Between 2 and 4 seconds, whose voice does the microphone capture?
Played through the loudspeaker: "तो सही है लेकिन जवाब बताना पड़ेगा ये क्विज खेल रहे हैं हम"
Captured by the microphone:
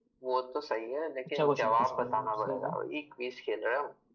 both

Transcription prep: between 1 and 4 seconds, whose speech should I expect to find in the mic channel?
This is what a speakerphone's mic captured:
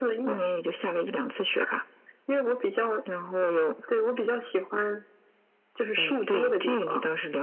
echo only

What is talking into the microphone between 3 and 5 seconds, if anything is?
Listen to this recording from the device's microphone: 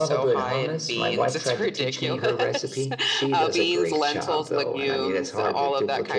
echo only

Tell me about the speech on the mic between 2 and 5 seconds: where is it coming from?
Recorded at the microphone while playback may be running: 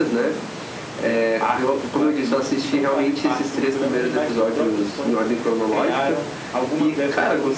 echo only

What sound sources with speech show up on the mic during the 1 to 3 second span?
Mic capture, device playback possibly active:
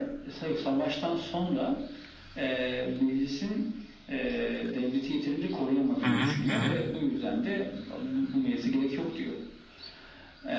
echo only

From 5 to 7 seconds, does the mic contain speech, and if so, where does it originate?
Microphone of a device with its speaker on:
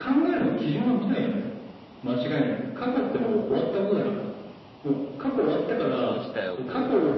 both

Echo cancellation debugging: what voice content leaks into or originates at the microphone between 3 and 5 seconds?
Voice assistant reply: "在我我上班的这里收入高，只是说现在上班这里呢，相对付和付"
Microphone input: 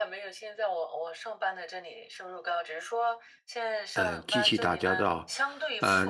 both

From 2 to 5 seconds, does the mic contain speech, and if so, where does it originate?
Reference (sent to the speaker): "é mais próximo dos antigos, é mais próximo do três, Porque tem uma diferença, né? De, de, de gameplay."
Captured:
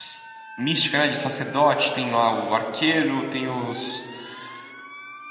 user only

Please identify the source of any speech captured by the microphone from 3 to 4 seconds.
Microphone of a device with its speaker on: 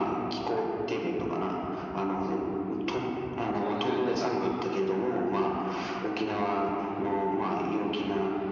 both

